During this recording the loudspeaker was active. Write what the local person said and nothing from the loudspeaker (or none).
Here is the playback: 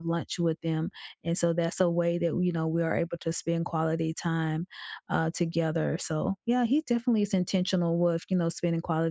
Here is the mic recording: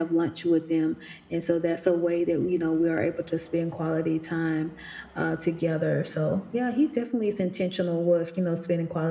none